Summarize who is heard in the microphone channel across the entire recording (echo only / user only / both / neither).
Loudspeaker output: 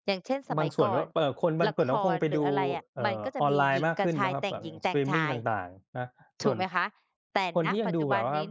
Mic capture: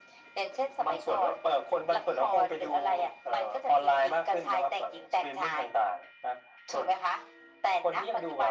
echo only